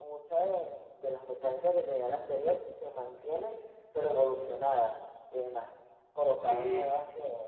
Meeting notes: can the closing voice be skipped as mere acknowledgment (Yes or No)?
Yes